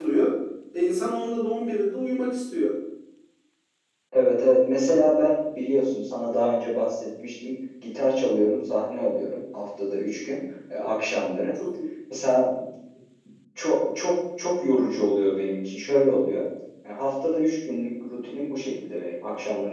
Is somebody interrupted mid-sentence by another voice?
No

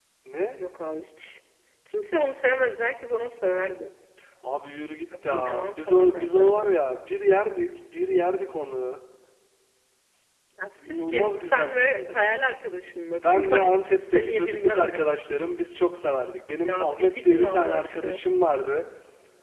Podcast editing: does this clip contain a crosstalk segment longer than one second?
Yes, from 5.2 s

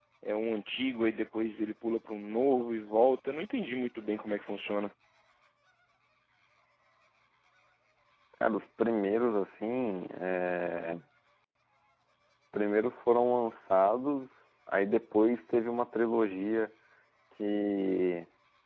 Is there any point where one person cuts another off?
No

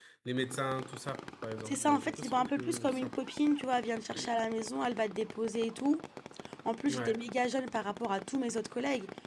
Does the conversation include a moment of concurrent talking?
Yes, from 1.6 s

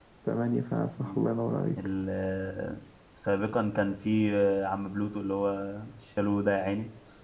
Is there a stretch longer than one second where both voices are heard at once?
No

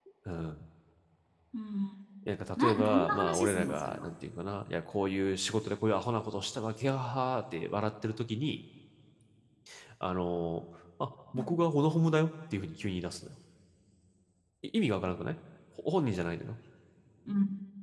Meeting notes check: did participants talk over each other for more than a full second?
Yes, from 2.6 s

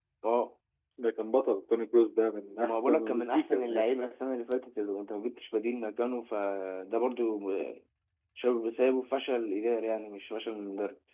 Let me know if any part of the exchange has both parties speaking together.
Yes, from 2.6 s

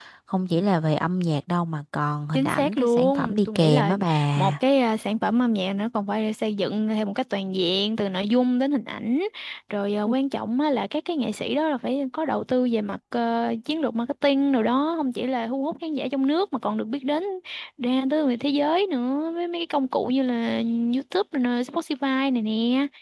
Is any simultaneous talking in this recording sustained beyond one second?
Yes, from 2.3 s

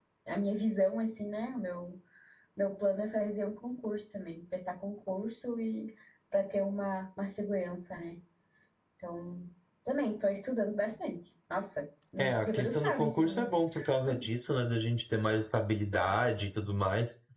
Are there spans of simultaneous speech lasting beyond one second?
Yes, from 12.2 s

